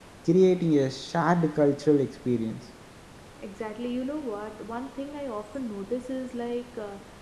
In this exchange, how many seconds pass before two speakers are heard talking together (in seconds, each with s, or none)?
none